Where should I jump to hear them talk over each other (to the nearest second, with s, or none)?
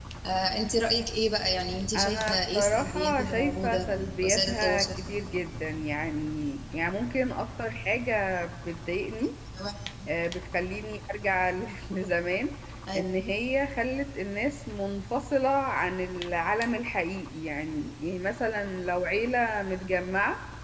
2 s